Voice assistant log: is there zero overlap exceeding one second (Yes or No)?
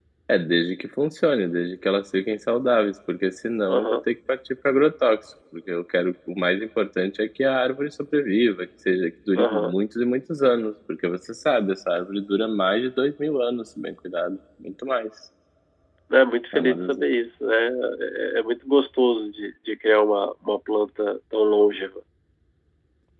Yes